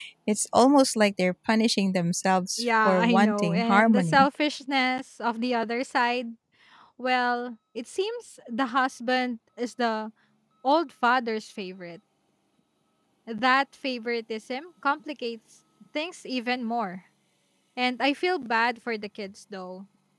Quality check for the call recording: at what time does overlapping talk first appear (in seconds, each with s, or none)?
2.6 s